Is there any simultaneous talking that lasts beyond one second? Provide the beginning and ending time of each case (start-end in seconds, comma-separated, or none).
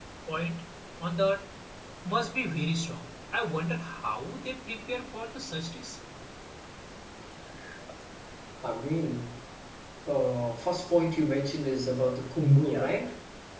none